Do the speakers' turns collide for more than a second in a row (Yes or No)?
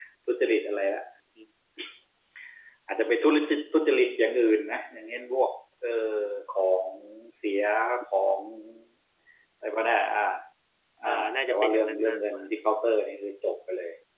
Yes